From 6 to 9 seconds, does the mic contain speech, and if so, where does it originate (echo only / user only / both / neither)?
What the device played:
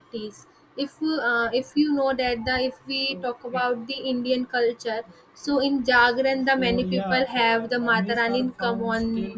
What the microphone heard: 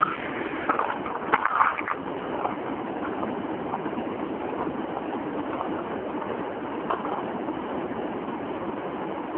neither